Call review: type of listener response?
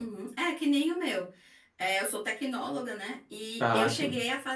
listening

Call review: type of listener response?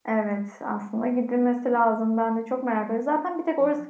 listening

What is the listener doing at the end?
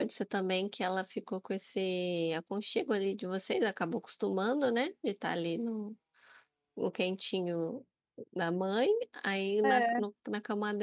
listening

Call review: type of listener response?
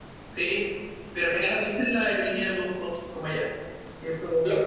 taking over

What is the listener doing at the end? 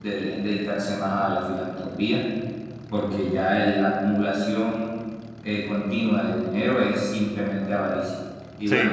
listening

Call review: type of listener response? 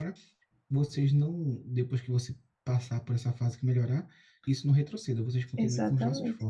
taking over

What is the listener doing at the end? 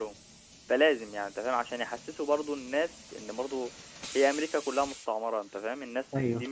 listening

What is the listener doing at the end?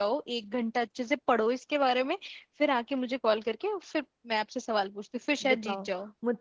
taking over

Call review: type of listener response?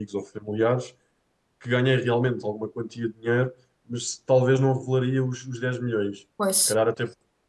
listening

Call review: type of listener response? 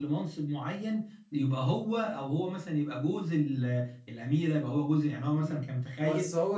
taking over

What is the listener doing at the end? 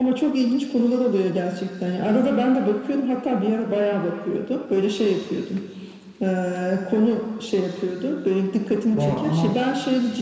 listening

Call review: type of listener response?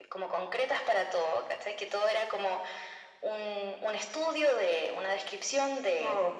listening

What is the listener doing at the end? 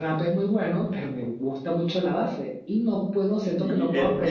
taking over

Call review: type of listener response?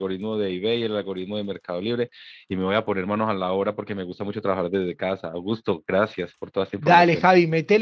taking over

